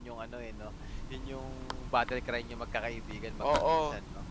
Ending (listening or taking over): taking over